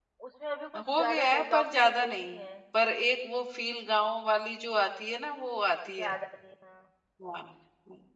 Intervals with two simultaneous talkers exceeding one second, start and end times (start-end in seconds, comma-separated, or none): 1.0-2.5